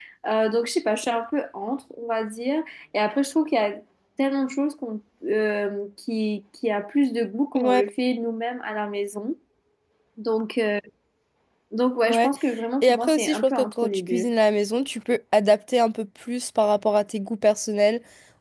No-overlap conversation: No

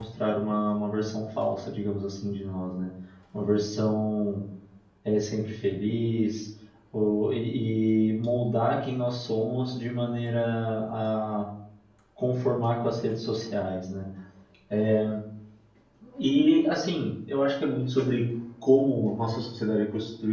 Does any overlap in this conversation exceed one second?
No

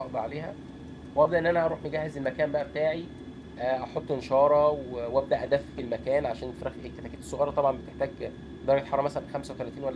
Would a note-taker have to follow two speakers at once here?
No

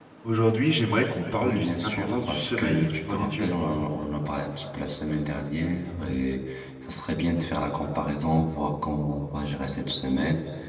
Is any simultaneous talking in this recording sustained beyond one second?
Yes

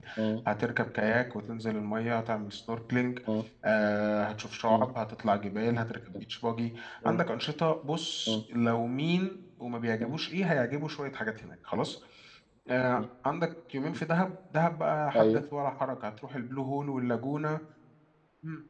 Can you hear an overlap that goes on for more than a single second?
No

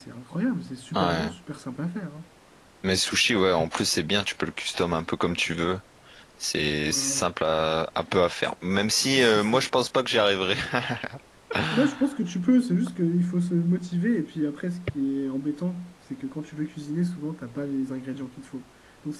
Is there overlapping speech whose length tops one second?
No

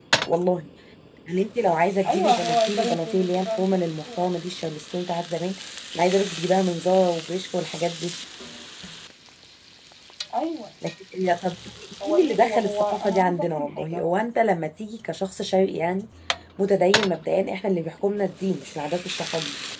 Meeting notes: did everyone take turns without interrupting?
No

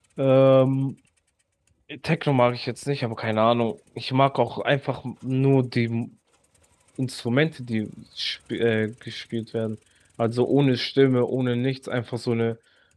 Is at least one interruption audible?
No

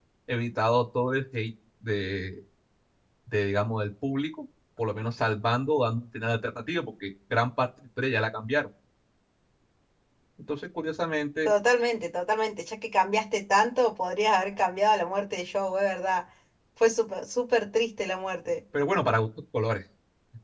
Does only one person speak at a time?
Yes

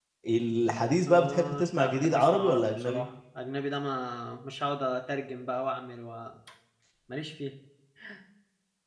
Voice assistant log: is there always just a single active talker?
No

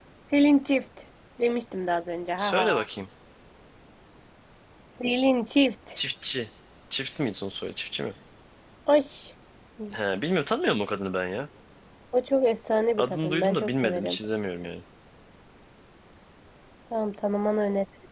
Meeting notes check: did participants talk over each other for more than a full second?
Yes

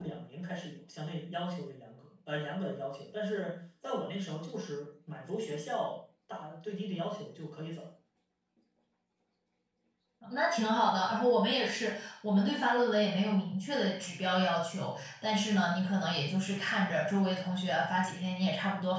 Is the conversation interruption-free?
Yes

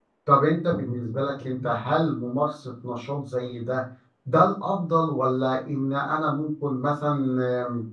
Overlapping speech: No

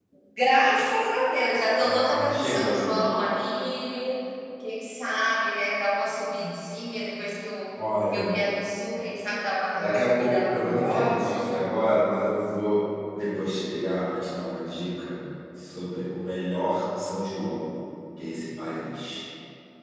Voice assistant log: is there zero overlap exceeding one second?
No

